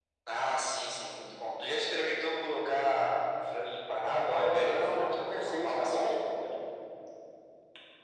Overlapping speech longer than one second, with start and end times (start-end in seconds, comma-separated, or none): 4.3-6.1